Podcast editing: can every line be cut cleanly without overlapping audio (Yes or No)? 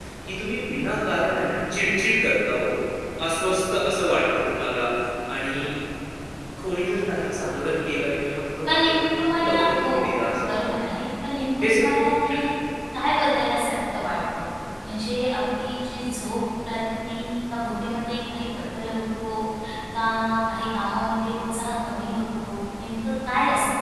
No